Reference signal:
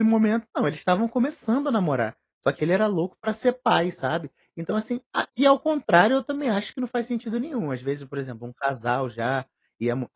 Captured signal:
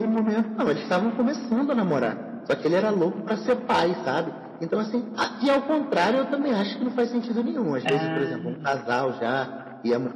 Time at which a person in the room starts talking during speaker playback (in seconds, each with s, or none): 7.8 s